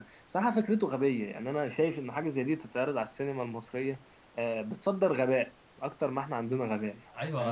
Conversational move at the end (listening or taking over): taking over